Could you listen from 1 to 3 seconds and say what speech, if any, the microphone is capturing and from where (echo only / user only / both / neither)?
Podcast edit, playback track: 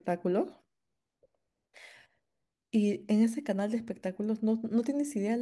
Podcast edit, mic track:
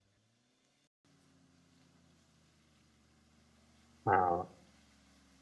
neither